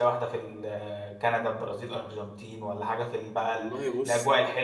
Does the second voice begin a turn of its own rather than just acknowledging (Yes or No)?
No